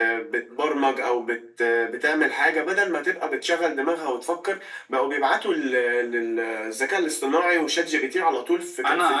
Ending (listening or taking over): taking over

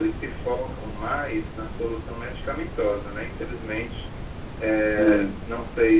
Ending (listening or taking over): listening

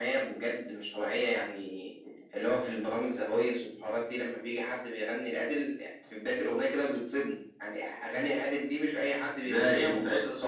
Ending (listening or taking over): taking over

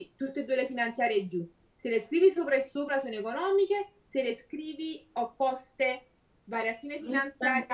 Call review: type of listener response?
listening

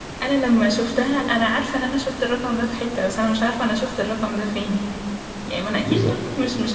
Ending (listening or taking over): listening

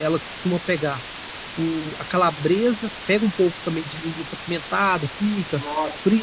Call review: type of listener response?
listening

